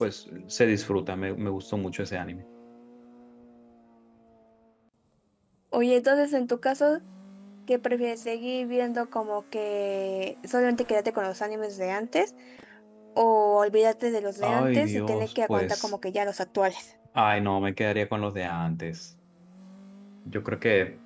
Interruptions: present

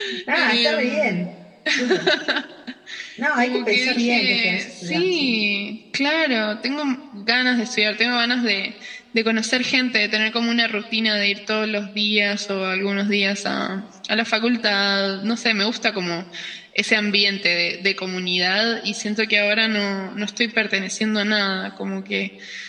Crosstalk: present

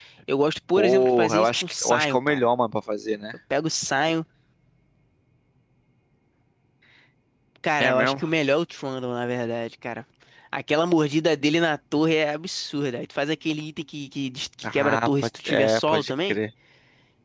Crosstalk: present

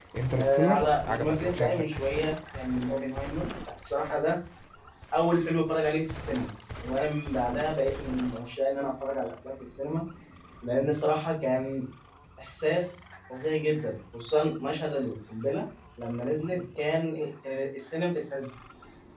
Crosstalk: present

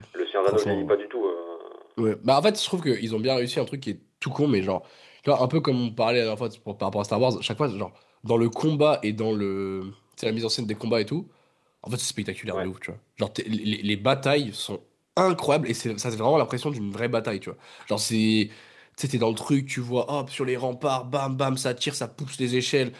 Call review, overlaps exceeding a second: none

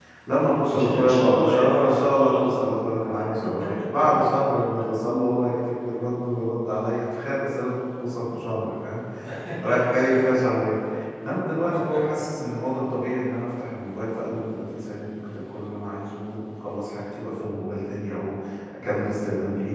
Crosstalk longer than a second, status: present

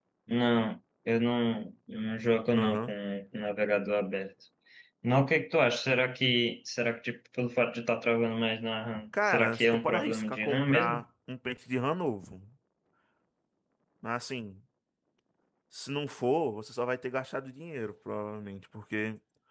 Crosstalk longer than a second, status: present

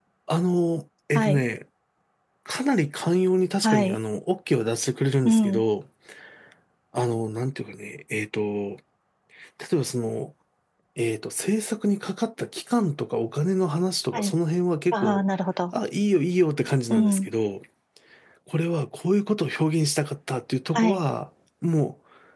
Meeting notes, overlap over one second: none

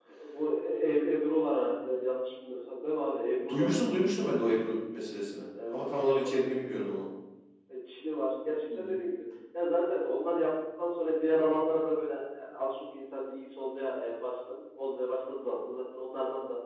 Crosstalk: present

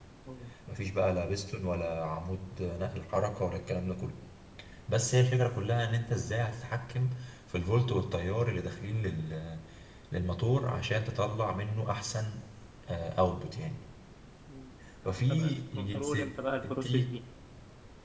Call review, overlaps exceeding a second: present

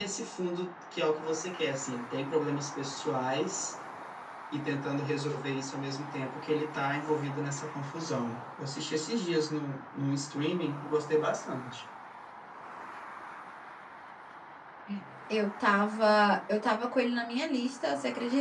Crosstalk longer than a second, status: none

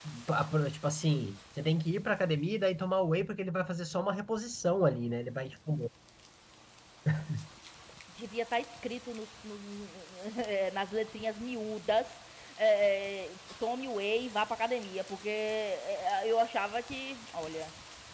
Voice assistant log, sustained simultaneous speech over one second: none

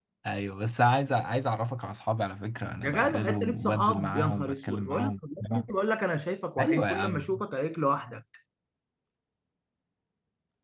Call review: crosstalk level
present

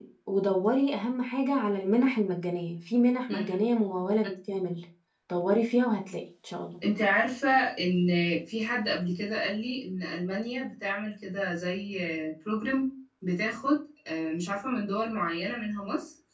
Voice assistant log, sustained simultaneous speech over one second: none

